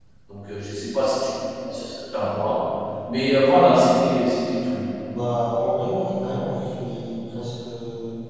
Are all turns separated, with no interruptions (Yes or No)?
Yes